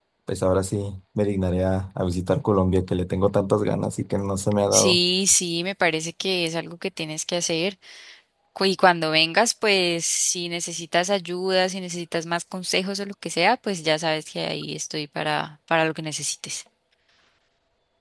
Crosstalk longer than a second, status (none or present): none